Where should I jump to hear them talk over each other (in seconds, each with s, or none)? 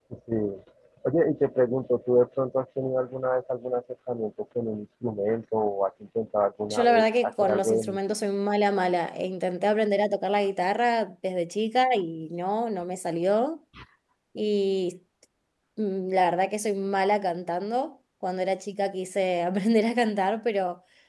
6.7 s